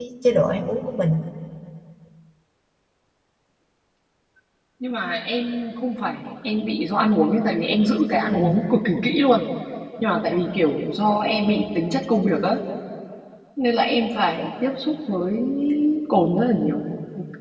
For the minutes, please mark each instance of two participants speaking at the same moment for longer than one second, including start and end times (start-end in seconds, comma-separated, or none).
none